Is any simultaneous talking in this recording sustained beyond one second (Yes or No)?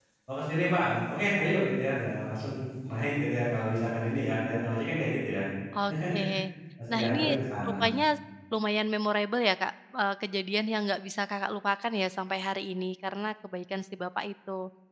No